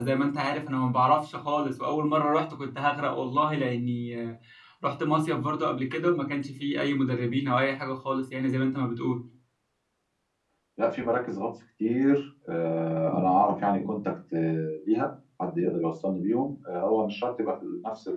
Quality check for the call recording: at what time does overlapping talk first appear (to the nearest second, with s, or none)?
none